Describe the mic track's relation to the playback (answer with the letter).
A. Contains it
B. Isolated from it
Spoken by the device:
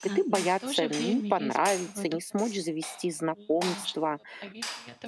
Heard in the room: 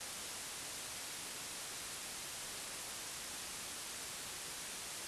B